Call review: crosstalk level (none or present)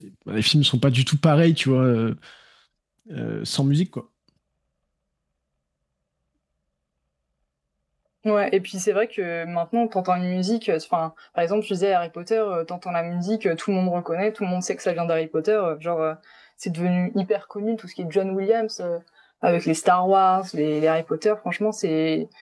none